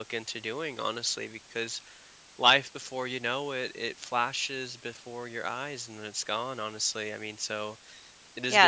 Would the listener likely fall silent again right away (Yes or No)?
No